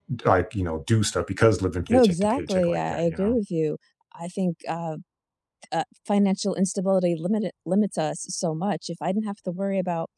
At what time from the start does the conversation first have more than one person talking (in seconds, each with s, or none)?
1.9 s